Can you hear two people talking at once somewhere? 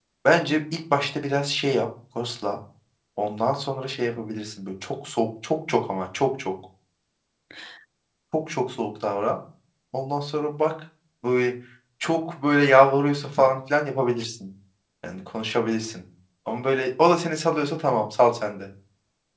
No

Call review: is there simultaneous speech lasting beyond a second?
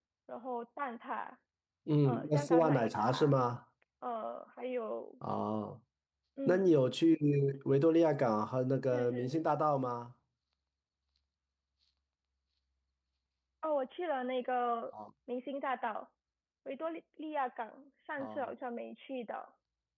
Yes, from 2.0 s

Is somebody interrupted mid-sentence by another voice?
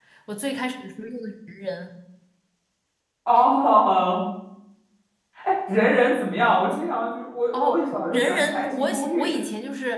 Yes, from 7.5 s

